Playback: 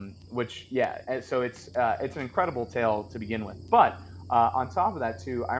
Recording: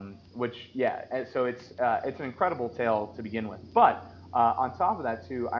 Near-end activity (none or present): none